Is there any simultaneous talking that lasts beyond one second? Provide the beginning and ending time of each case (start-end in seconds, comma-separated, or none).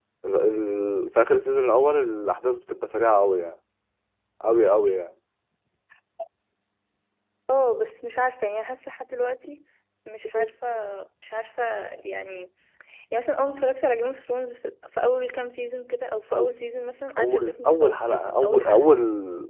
17.2-18.8